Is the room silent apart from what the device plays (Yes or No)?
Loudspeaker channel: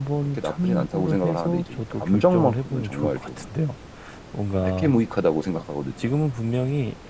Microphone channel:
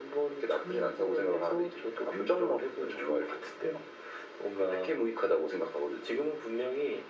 Yes